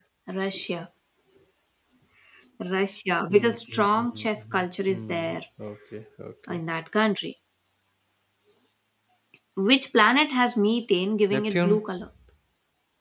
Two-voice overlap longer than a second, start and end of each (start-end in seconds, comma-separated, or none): 3.3-5.4